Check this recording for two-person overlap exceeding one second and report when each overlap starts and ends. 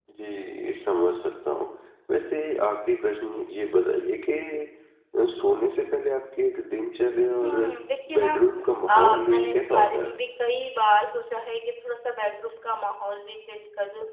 8.9-10.1

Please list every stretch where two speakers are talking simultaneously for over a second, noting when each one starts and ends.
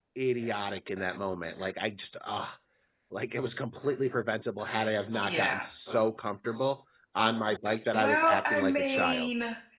7.9-9.3

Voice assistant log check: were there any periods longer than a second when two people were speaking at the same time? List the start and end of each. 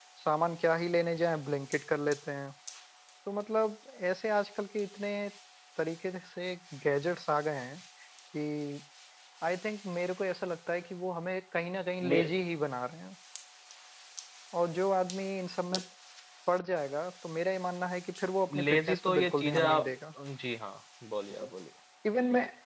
18.5-19.9

